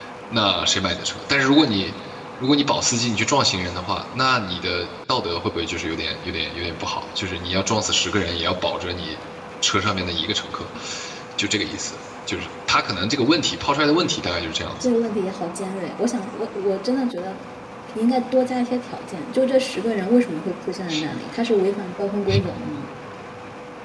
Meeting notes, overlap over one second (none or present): none